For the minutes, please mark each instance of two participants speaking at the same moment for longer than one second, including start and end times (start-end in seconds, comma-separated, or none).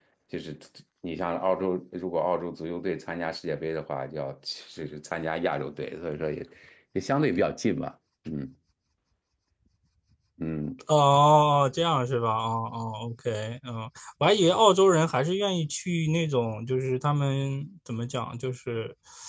none